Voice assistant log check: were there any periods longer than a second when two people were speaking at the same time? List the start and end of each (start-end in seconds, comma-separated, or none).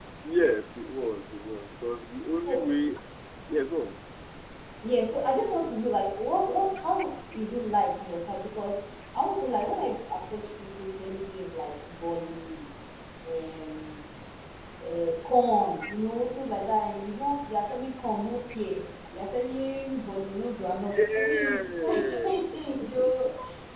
20.9-22.4